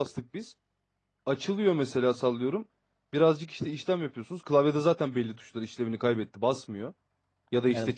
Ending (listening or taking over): taking over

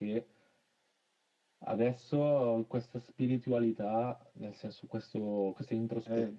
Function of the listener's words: listening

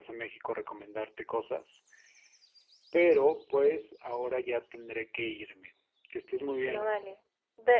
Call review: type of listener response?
taking over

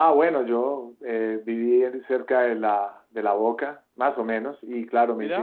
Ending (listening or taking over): listening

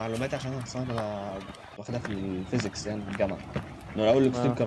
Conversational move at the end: listening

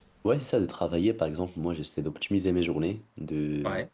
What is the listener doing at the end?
listening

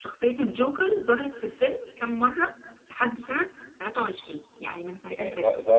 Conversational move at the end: taking over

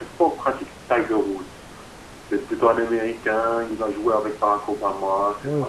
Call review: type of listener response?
taking over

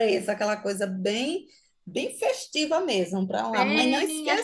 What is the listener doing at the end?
taking over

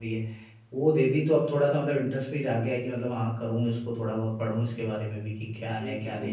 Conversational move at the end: taking over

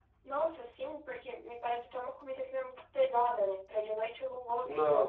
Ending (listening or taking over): listening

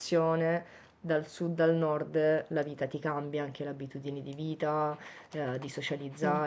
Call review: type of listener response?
listening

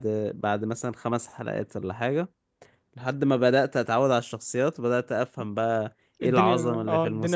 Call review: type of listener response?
taking over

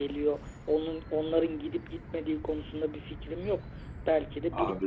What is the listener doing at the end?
listening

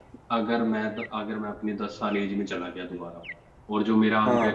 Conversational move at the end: listening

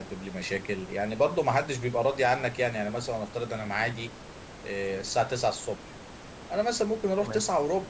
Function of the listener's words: listening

